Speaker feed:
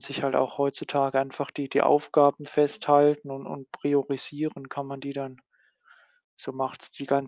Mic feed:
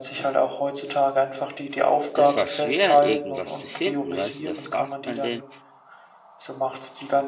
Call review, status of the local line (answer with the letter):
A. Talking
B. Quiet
A